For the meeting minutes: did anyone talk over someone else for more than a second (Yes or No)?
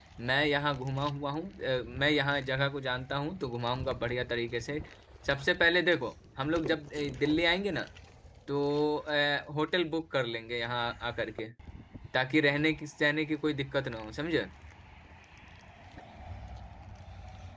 No